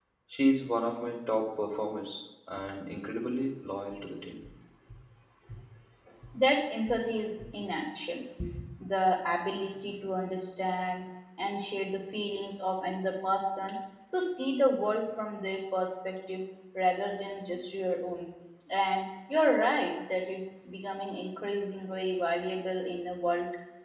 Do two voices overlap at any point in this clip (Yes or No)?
No